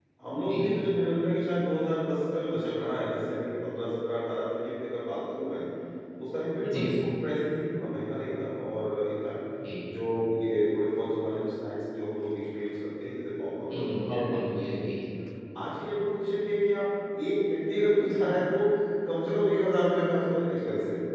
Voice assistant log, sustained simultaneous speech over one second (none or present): present